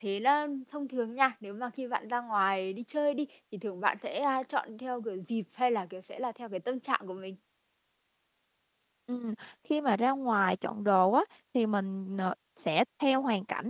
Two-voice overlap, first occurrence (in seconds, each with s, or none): none